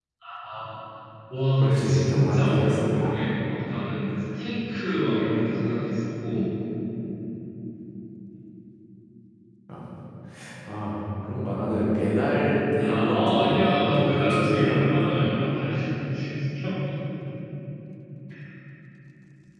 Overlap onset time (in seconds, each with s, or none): 1.6 s